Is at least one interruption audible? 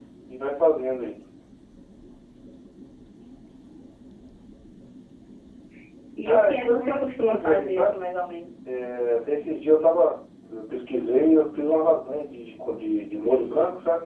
Yes, from 6.2 s

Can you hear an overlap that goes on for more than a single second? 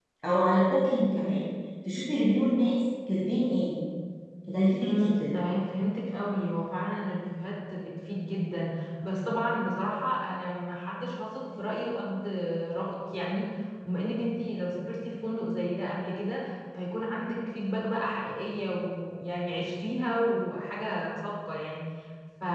No

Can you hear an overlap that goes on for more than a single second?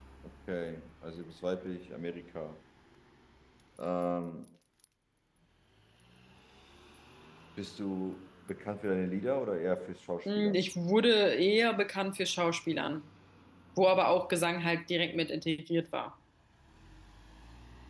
No

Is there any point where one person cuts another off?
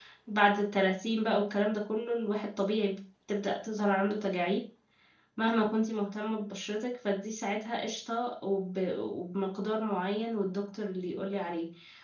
No

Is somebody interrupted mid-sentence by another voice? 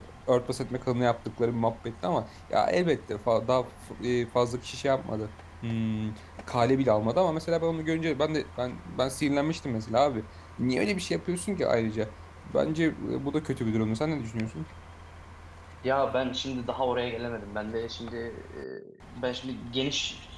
No

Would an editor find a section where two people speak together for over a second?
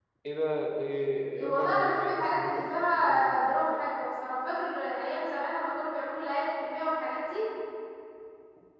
Yes, from 1.4 s

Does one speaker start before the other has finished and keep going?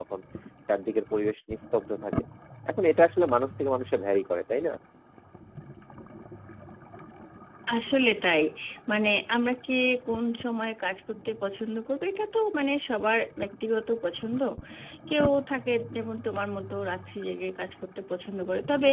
No

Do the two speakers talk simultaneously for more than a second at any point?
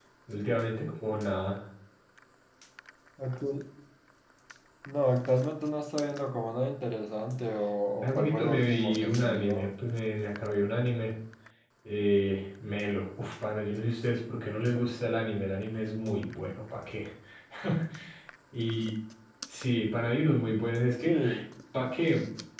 Yes, from 8.0 s

